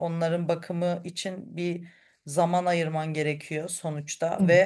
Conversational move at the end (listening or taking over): listening